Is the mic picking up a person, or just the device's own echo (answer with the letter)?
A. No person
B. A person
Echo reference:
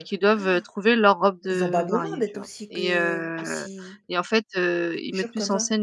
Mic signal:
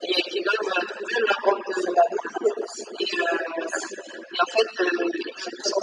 A